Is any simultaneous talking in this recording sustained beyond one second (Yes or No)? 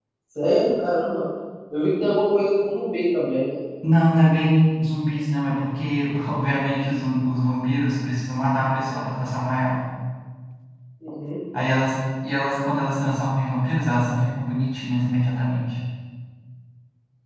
No